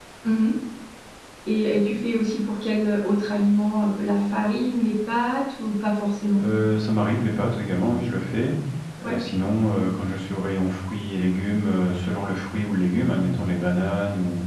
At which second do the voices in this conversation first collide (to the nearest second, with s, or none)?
none